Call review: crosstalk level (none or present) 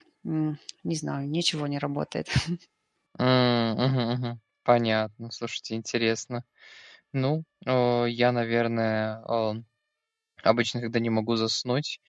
none